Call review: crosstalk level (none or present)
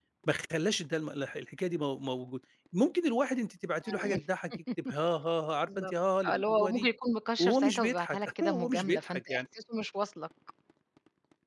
present